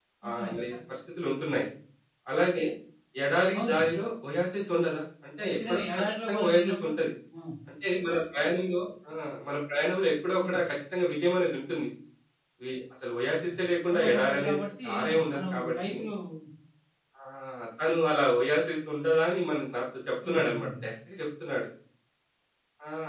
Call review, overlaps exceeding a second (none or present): present